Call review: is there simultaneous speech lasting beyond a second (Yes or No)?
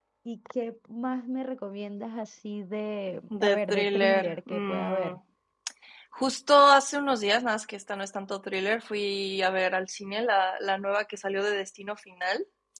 Yes